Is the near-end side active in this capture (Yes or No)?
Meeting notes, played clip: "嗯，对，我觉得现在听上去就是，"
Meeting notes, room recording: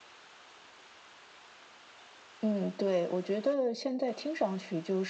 No